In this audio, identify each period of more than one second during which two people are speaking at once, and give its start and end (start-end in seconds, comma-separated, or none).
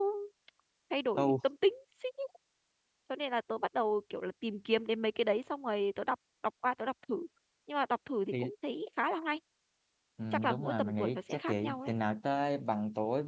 10.3-11.9